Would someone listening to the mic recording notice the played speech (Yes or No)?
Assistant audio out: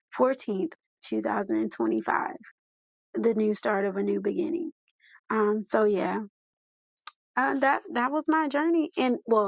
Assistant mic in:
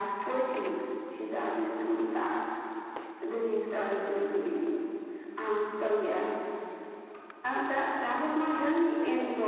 Yes